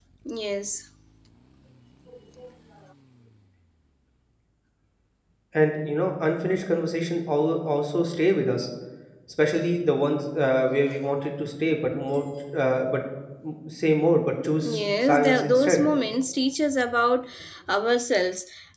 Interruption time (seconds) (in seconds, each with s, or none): 14.6 s